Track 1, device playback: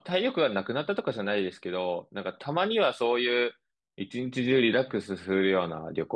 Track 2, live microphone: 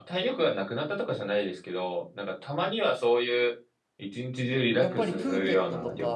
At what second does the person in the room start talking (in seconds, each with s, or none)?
4.8 s